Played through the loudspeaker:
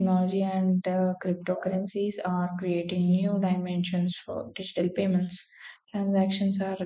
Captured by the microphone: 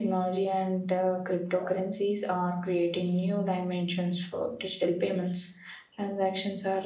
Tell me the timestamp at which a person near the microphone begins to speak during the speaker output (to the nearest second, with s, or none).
none